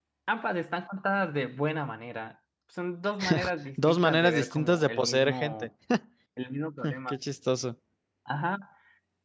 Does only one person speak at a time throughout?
No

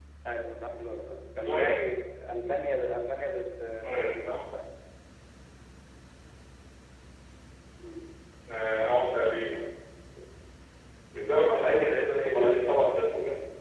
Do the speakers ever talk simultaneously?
Yes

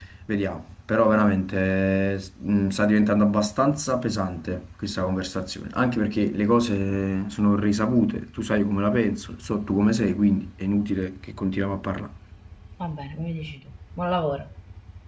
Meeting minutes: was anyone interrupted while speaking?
No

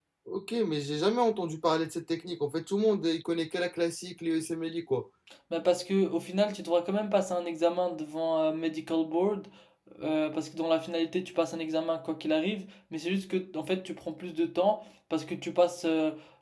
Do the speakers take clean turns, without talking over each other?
Yes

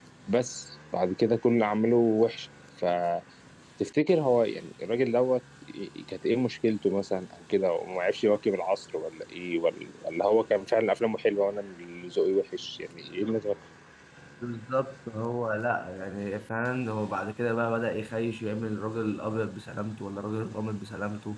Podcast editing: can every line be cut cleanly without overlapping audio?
Yes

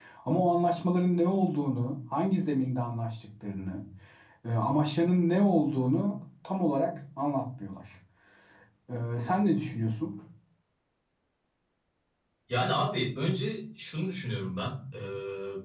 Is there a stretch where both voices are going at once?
No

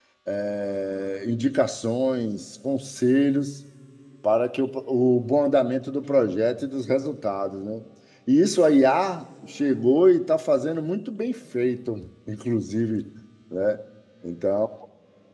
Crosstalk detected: No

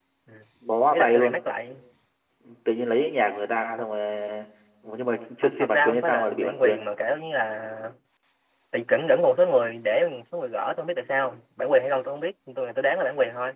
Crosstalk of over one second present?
Yes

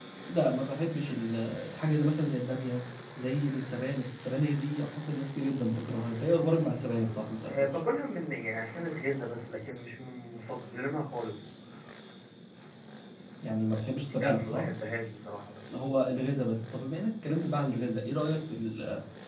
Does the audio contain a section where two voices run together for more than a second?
No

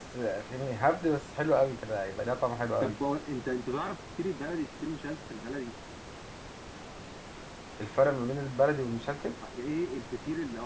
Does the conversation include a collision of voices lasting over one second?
No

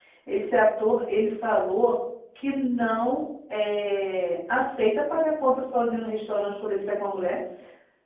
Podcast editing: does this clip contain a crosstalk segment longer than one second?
No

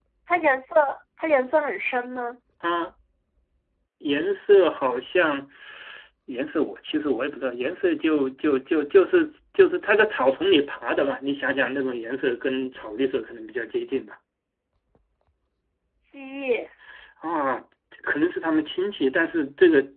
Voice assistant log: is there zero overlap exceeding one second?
Yes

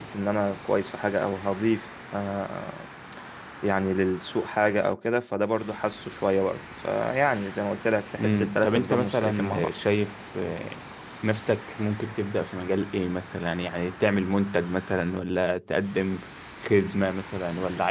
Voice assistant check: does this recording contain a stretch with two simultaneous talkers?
Yes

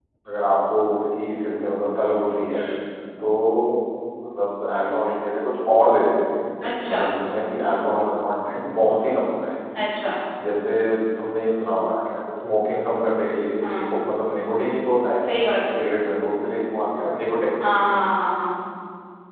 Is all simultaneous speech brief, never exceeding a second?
Yes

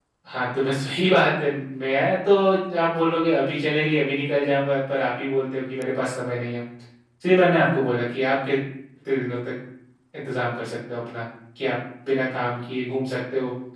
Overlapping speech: No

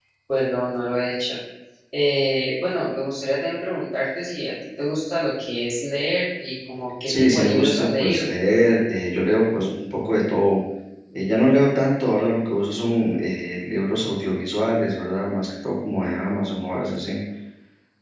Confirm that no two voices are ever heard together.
No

